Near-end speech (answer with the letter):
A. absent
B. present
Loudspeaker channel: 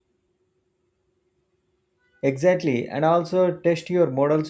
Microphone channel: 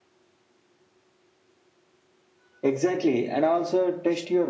A